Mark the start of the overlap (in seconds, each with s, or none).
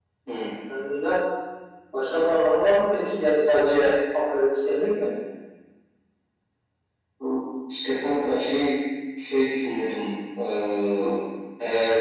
none